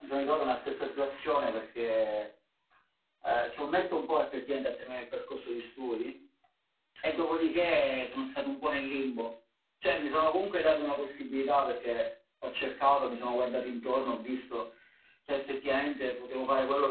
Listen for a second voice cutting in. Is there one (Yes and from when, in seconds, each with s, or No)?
No